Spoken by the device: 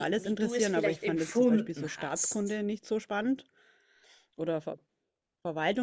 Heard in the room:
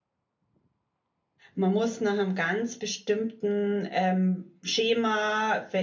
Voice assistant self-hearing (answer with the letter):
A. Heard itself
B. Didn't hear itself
B